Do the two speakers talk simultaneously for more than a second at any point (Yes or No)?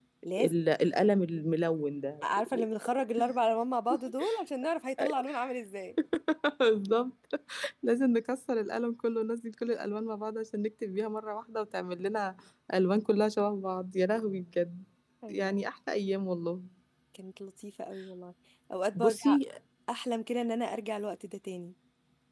No